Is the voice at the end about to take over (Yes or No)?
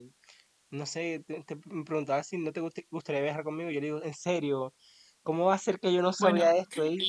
Yes